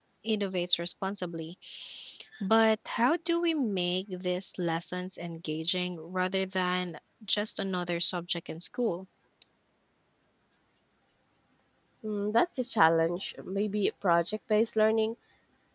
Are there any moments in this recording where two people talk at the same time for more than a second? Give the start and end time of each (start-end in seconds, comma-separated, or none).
none